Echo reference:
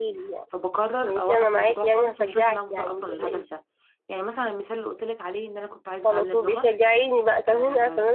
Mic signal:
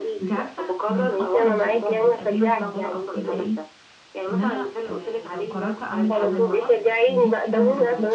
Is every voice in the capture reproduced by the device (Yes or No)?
No